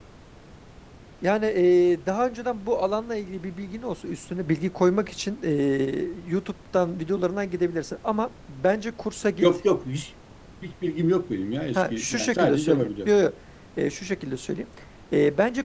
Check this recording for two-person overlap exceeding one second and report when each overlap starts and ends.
11.8-13.1

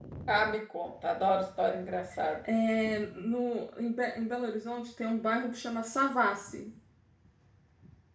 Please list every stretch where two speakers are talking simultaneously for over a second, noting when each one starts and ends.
none

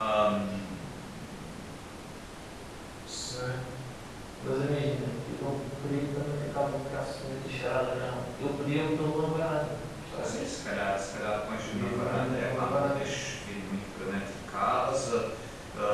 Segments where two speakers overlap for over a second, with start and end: 11.6-13.1

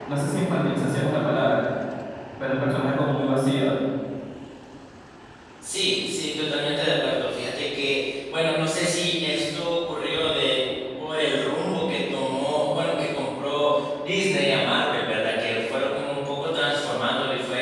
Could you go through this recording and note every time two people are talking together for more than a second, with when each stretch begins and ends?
none

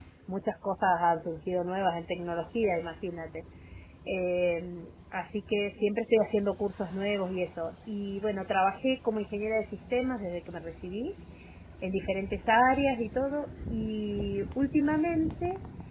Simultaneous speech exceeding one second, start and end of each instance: none

